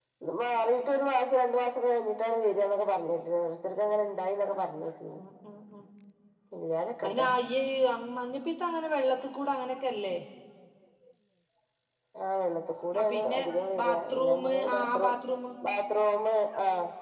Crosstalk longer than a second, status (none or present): present